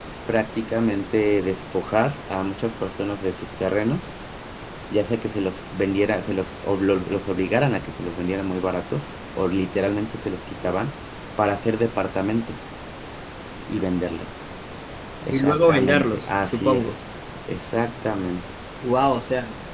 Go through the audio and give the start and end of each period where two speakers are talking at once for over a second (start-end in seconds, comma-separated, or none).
15.3-16.9